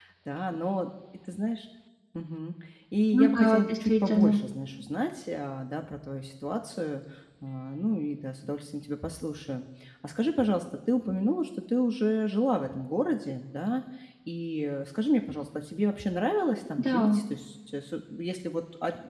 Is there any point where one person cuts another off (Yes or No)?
Yes